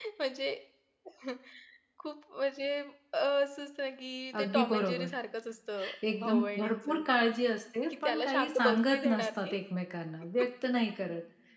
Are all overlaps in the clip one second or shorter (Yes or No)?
No